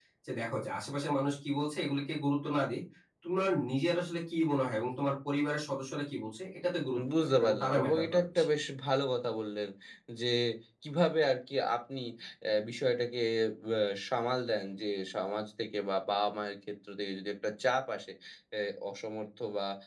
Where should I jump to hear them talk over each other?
7.0 s

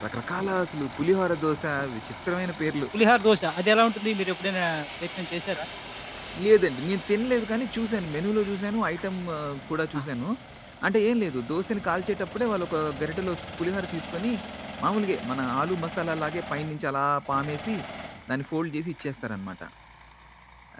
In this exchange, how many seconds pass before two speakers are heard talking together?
none

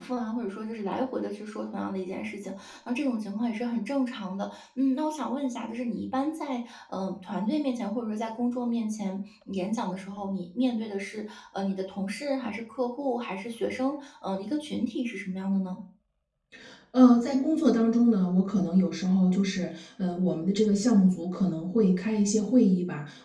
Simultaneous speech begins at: none

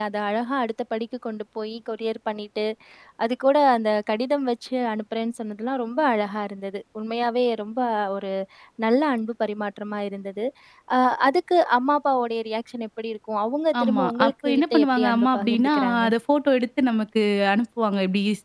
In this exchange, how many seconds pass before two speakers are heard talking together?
13.7 s

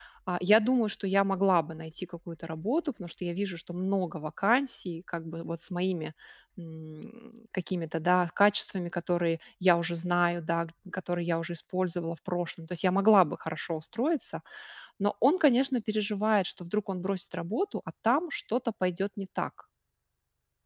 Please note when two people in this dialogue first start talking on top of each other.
none

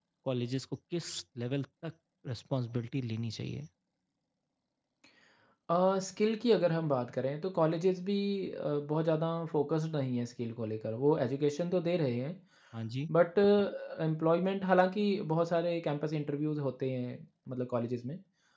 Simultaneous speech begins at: none

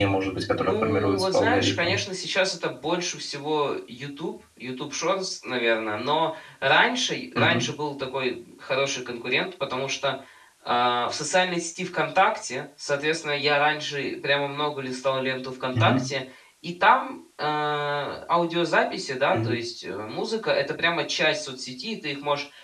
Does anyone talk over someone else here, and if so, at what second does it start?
0.6 s

